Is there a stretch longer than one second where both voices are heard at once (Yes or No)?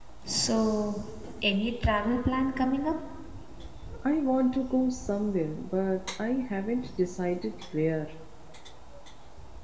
No